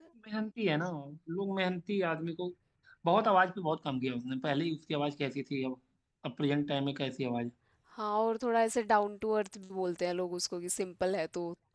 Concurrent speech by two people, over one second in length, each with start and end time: none

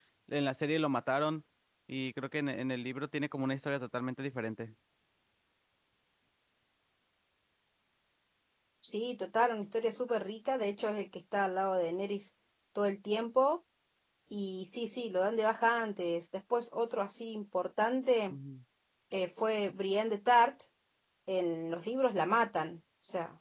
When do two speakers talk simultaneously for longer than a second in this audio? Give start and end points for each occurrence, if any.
none

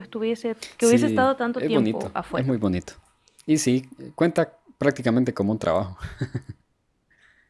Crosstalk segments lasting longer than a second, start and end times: 0.8-2.4

